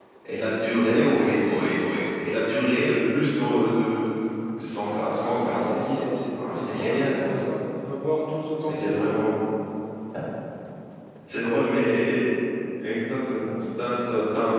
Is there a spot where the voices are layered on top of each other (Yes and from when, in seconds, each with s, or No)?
Yes, from 5.2 s